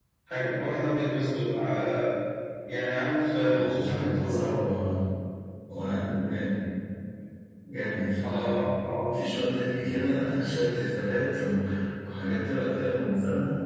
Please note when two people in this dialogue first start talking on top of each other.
3.4 s

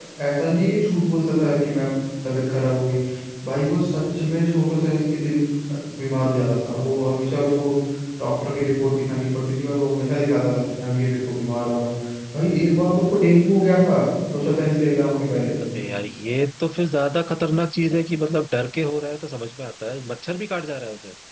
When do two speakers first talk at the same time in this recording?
none

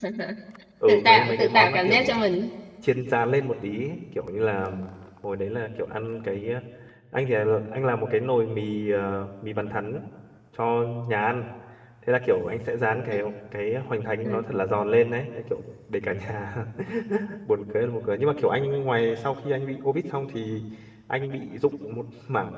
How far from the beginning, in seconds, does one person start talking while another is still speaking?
0.9 s

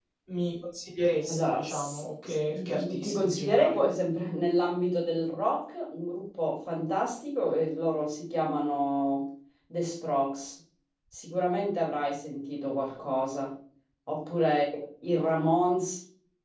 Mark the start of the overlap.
1.3 s

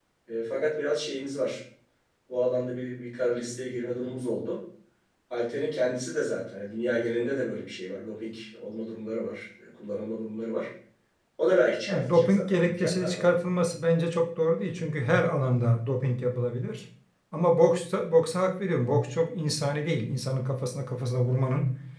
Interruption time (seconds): 11.9 s

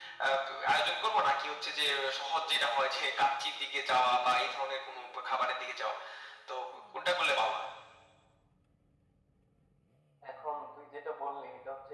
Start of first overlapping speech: none

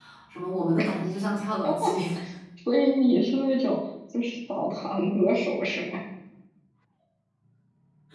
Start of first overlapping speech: none

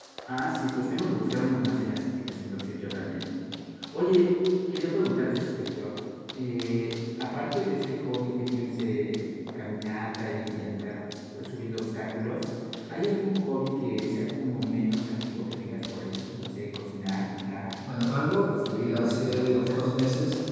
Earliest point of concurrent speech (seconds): 18.2 s

